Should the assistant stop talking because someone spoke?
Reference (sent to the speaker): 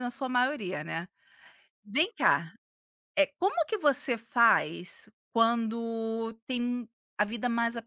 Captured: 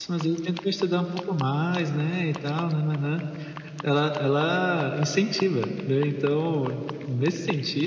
Yes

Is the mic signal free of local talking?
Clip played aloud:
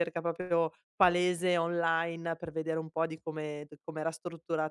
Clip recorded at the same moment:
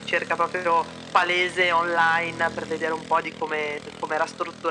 Yes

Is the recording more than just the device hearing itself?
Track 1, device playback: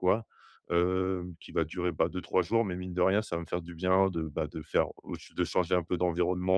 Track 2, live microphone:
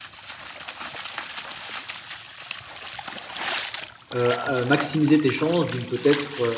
Yes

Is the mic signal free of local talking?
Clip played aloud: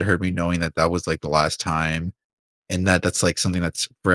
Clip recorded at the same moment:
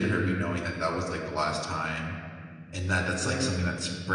No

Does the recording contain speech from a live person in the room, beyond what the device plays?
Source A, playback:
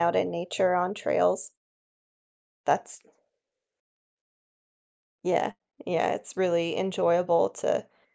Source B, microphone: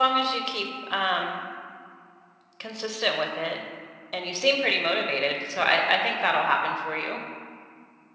Yes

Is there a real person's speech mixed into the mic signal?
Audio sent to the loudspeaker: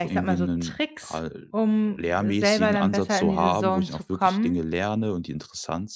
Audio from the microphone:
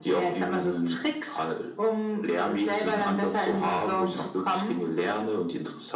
No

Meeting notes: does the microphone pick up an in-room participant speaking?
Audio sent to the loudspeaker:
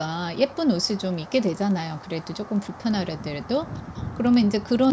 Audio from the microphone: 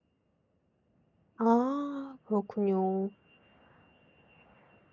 Yes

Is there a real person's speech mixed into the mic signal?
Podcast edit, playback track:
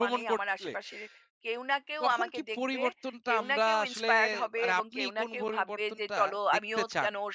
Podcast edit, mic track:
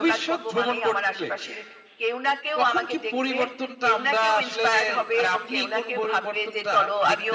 No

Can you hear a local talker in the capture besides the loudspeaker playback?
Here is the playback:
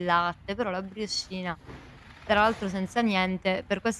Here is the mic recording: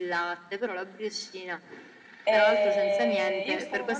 Yes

